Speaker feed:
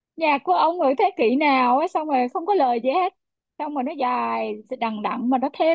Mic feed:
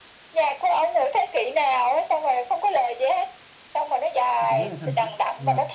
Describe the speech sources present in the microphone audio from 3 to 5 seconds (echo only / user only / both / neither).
both